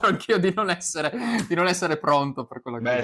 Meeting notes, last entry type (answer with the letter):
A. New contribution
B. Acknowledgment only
A